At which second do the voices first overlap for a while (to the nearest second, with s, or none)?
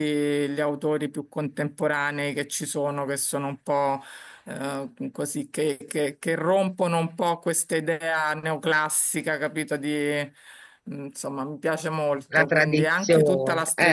12 s